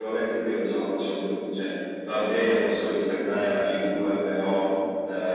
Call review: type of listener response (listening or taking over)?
listening